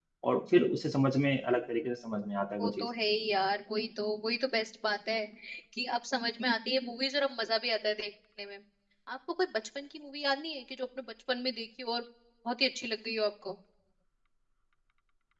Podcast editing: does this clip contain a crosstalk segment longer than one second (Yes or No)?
No